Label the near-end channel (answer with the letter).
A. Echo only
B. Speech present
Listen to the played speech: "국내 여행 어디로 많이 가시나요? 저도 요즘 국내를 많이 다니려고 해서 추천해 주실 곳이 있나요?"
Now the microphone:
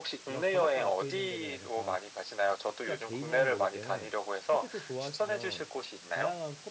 B